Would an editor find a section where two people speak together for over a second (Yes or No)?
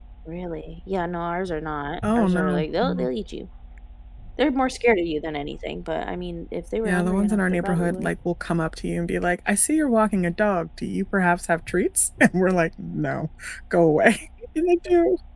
Yes